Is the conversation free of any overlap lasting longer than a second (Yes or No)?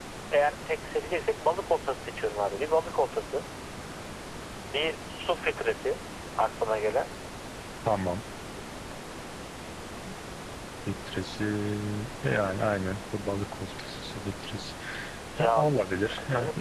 Yes